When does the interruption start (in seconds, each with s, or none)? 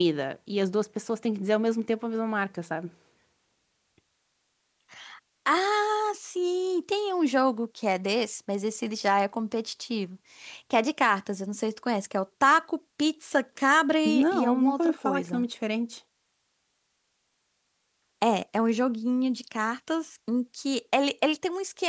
14.1 s